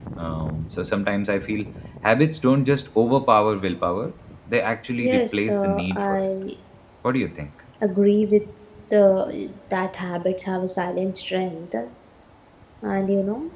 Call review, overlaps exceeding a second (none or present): present